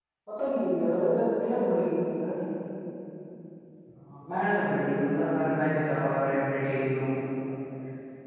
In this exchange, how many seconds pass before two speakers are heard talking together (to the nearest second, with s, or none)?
none